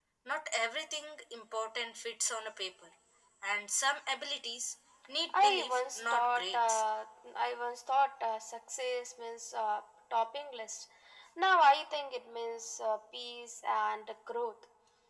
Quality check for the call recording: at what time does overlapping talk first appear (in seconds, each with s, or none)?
5.3 s